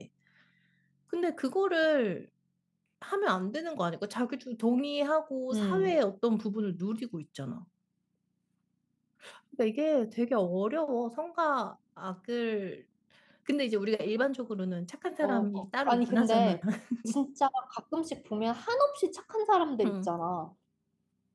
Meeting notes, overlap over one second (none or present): present